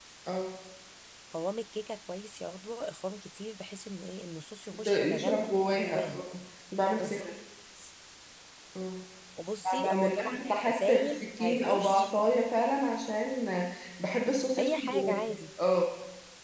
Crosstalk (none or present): present